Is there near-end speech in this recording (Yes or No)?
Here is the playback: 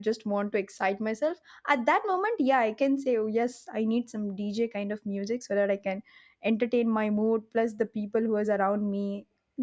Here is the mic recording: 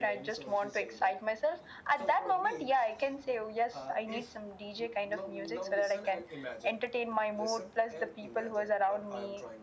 Yes